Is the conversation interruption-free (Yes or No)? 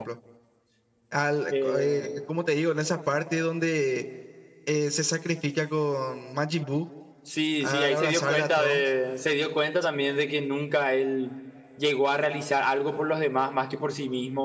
No